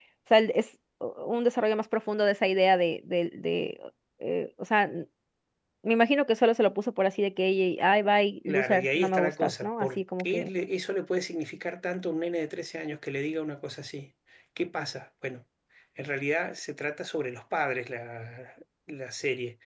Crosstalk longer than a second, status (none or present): present